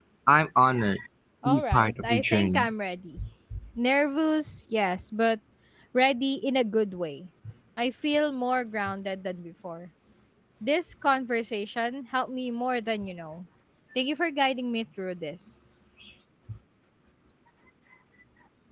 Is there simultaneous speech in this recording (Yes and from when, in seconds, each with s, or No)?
Yes, from 1.4 s